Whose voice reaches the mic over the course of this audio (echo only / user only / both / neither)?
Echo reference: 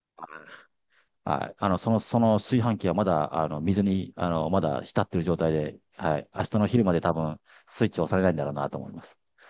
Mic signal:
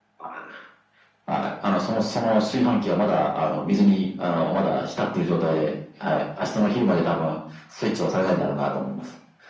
echo only